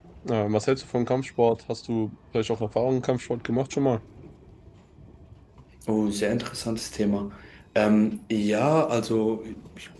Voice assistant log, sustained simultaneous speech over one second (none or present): none